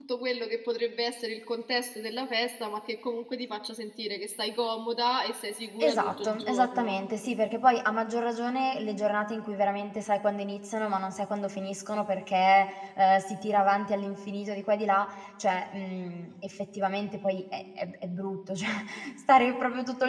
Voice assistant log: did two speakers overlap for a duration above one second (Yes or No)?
Yes